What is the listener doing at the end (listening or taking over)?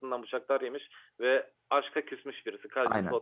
taking over